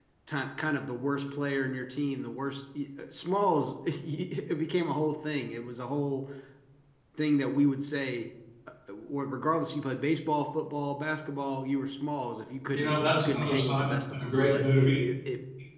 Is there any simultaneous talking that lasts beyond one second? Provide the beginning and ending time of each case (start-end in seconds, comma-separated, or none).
12.7-15.0